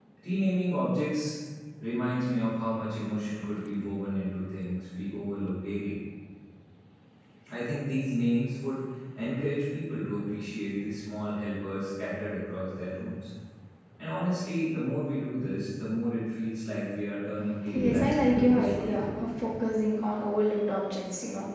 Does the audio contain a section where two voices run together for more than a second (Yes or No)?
Yes